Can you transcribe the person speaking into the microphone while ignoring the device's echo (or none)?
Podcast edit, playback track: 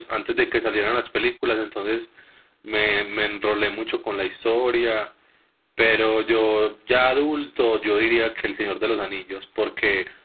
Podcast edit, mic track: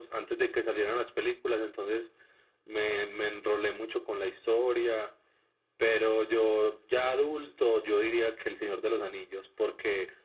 none